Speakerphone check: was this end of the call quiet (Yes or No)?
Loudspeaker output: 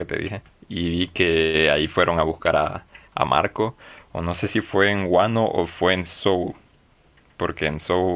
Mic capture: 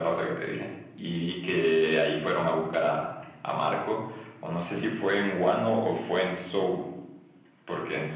Yes